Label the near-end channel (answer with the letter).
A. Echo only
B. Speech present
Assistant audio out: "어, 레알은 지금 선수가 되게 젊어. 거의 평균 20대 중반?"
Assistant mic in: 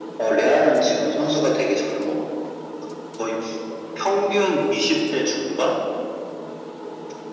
A